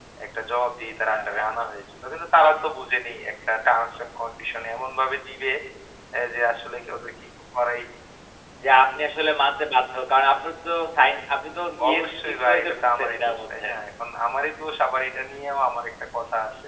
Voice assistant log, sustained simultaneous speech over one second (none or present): present